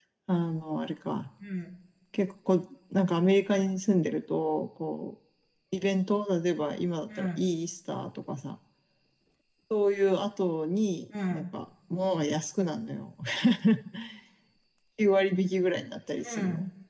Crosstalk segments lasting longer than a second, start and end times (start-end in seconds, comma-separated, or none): none